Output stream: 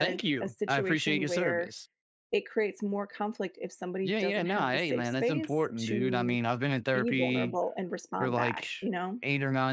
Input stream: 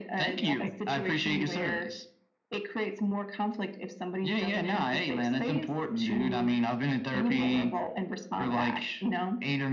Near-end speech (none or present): present